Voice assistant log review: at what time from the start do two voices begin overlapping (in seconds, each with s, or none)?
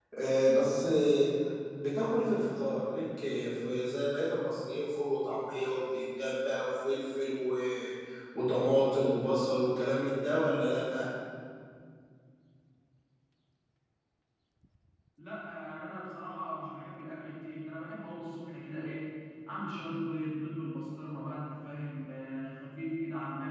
none